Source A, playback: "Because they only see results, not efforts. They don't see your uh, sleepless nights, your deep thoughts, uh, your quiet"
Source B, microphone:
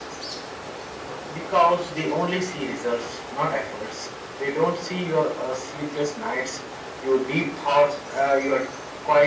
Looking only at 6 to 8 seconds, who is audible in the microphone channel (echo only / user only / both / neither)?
echo only